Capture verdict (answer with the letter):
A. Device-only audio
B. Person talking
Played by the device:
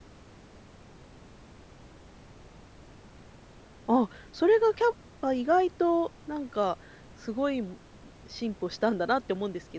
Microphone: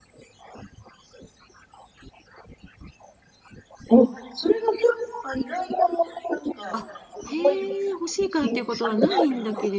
B